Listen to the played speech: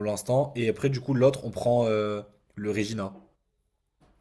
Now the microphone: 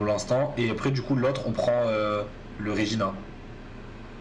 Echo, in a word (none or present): present